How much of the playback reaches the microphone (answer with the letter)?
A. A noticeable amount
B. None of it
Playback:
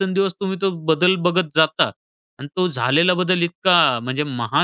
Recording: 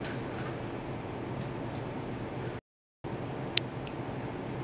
B